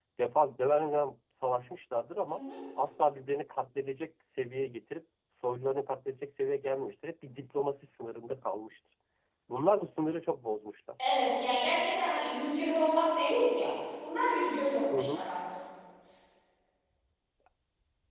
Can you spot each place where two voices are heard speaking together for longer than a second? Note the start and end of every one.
none

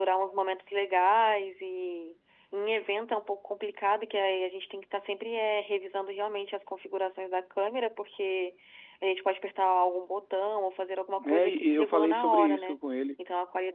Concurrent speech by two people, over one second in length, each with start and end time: 11.3-12.8

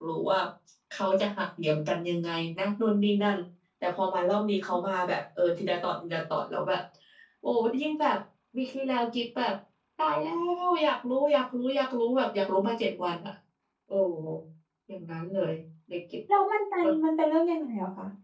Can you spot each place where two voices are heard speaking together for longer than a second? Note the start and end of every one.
none

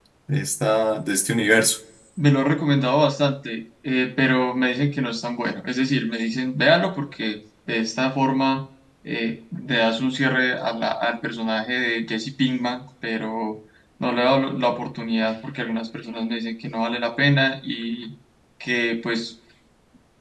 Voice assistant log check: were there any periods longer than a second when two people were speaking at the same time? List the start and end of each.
none

